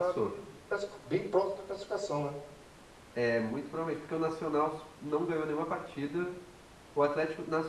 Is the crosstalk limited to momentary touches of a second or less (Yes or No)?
Yes